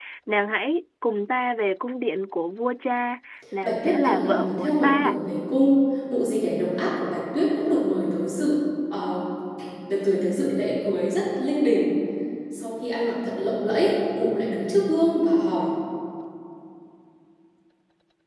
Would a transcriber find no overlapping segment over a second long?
No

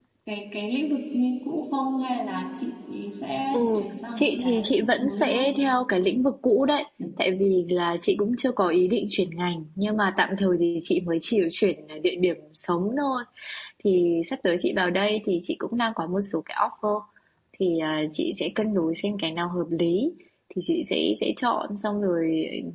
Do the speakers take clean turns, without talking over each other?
No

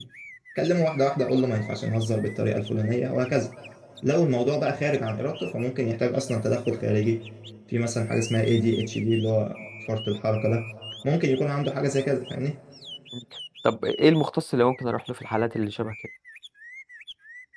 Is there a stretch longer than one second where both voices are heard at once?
No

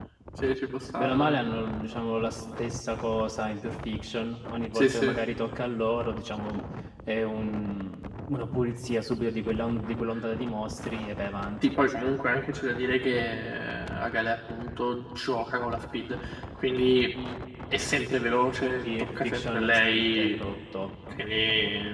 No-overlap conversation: No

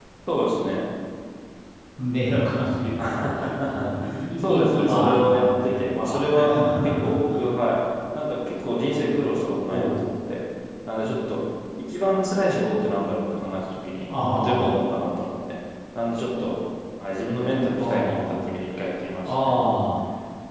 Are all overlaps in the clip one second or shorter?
No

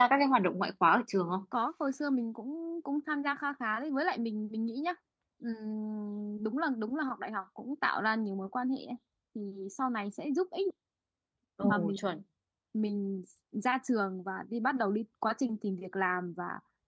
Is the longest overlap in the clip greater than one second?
No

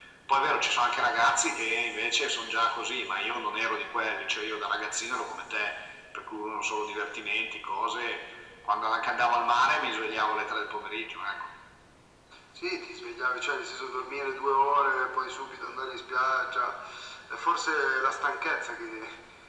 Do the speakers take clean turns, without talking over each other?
Yes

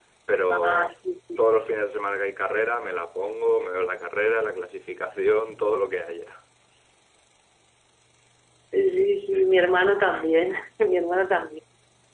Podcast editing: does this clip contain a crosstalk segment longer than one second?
No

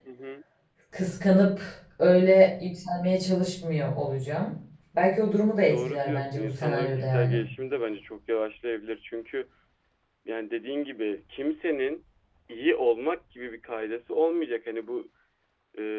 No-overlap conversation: No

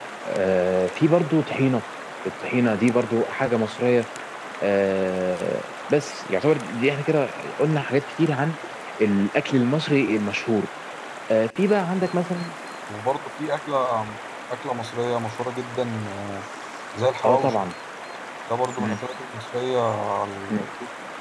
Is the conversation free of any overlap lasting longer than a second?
Yes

